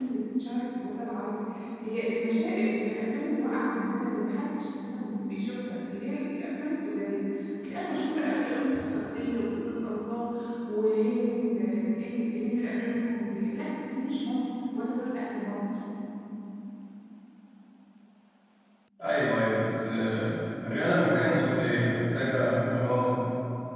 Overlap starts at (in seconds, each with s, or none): none